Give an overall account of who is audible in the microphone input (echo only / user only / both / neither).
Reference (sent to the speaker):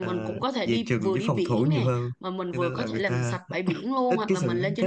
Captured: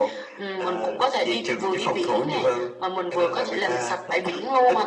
echo only